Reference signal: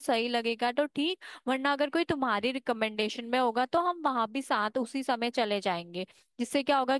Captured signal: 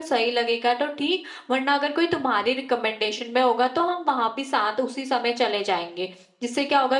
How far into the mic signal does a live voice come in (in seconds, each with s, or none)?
none